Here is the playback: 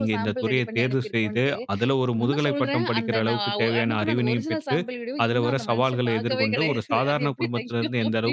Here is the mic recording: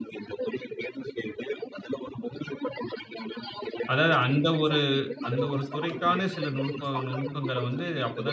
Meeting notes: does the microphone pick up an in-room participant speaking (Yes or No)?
Yes